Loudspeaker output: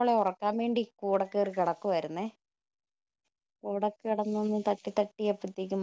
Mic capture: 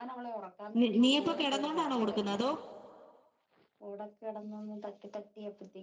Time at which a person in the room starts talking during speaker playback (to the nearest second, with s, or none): 1 s